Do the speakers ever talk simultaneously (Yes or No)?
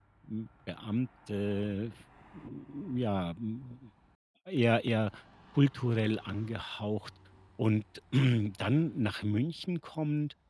No